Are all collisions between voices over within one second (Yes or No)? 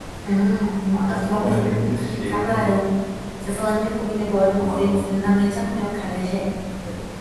No